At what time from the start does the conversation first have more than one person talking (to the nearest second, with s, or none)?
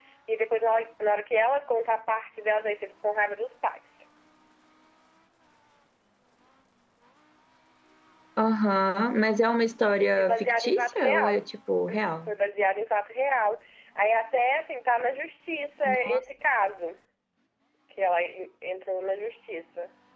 10 s